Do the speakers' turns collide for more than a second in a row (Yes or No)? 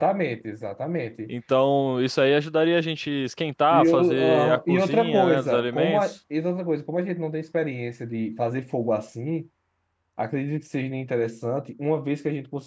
Yes